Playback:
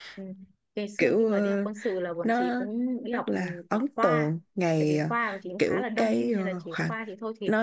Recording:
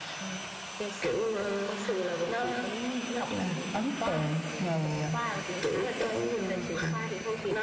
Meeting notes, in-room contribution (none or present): none